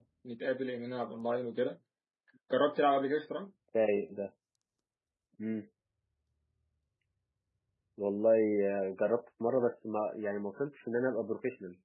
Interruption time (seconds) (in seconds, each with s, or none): none